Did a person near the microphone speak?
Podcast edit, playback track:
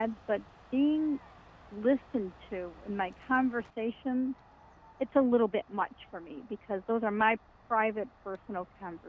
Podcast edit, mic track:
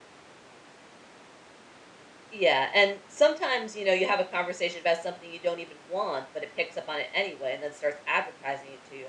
Yes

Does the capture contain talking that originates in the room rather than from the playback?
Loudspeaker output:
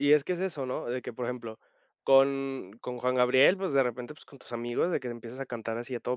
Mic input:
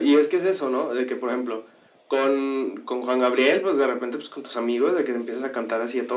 No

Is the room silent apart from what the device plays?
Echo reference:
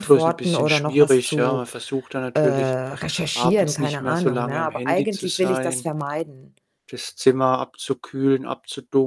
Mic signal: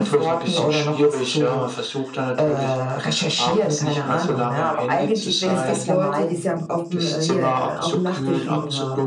No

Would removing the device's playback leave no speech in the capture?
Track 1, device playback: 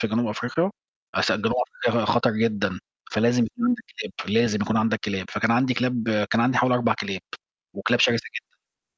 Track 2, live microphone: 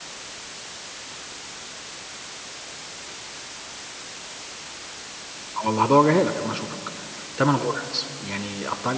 No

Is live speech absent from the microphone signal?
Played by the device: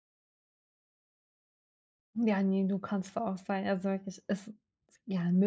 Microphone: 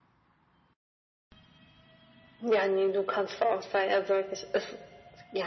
Yes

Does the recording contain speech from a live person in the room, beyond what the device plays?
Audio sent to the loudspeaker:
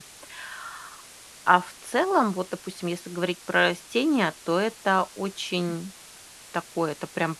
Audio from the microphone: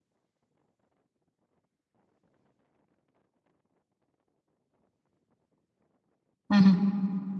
Yes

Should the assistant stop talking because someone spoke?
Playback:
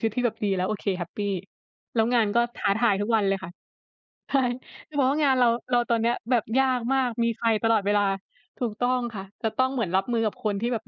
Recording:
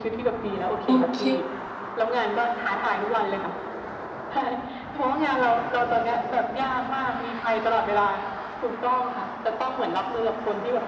Yes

